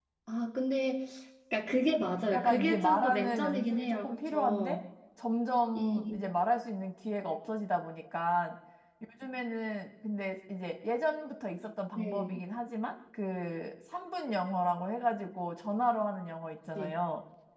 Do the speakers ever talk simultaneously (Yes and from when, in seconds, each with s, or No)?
Yes, from 2.3 s